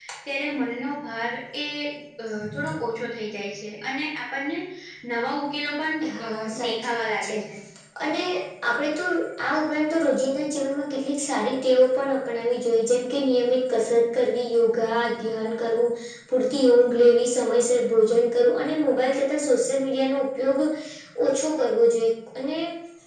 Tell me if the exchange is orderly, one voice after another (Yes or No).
No